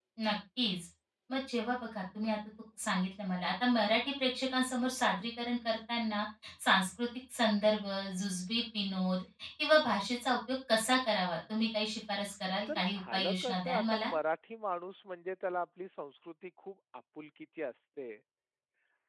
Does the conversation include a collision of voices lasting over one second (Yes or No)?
Yes